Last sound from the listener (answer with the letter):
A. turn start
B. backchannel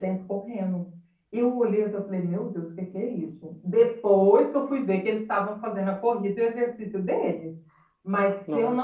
B